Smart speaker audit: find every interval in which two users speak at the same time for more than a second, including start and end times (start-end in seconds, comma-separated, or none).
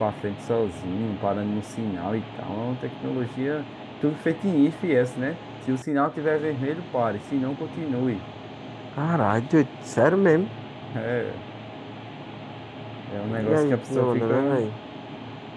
13.4-14.6